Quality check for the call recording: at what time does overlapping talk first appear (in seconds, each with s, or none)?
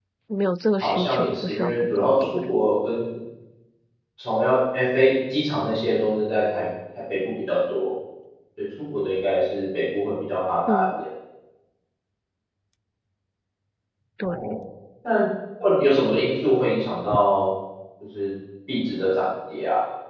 0.8 s